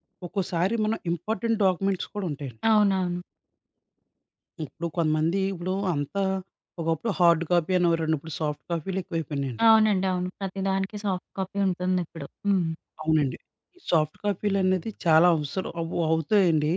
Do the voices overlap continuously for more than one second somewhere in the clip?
No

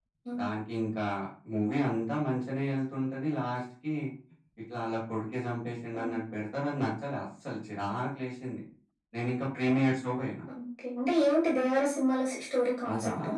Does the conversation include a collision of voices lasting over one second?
No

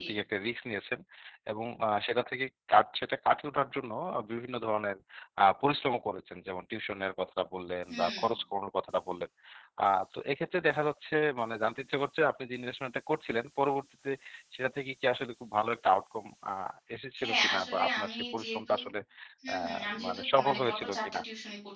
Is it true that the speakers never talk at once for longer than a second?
No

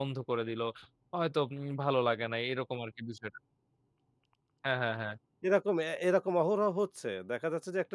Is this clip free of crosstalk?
Yes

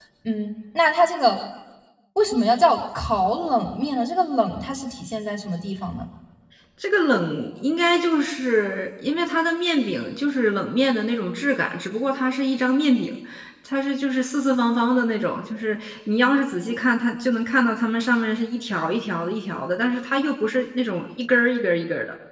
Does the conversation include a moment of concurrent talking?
No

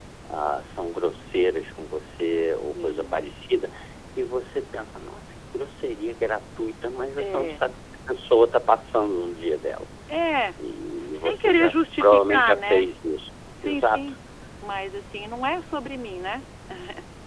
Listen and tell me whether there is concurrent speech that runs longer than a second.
Yes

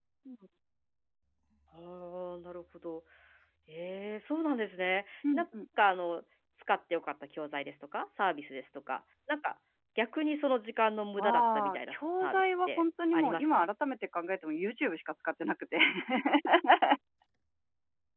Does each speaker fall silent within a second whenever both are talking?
No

